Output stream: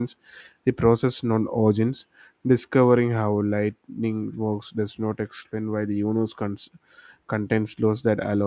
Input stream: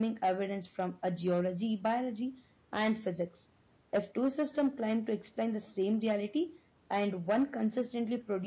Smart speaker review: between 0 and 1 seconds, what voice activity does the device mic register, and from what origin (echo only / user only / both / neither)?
user only